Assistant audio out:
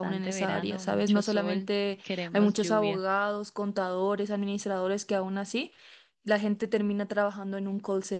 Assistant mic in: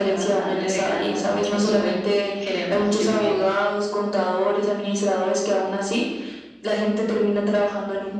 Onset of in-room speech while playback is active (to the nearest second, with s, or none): none